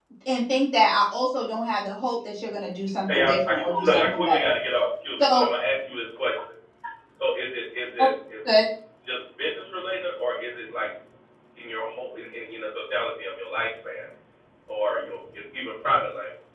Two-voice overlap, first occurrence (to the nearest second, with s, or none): 3 s